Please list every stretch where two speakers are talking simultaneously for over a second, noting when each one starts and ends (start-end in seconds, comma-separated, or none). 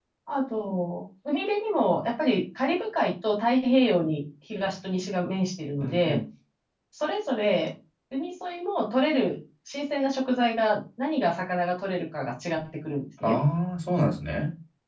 none